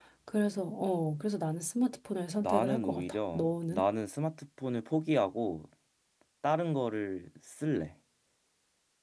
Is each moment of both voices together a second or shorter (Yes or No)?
No